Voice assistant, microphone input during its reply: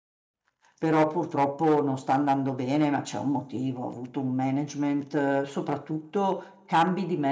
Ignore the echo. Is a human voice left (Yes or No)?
Yes